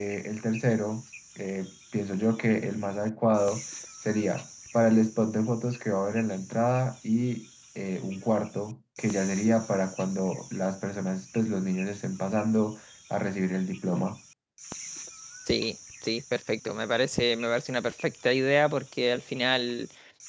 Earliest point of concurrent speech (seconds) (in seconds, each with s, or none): none